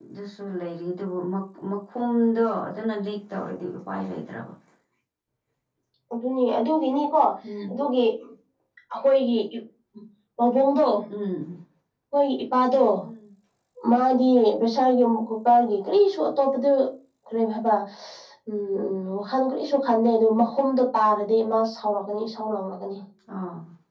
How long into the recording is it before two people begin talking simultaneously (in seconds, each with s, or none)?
none